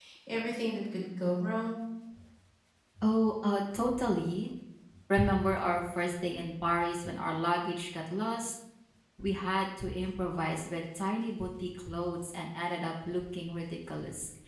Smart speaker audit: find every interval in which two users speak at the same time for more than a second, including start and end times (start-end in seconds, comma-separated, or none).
none